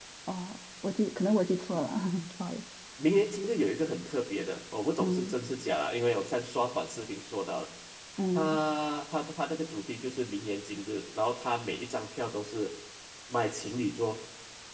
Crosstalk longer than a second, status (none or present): none